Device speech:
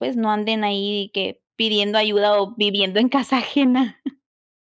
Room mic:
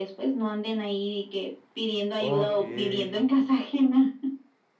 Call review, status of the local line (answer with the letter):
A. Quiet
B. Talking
B